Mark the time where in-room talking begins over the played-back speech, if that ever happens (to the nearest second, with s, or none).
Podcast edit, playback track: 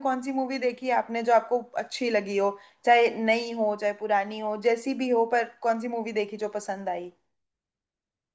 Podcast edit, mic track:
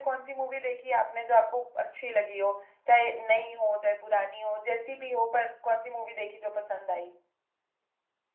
none